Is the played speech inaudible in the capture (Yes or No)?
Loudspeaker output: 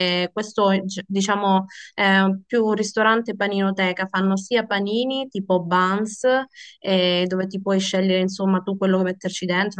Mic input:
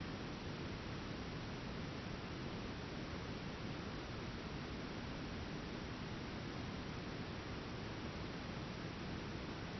Yes